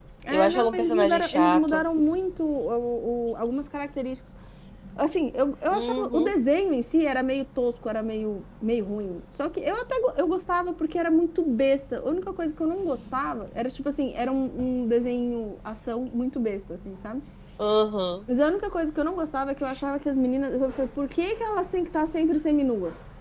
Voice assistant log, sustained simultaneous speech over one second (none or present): present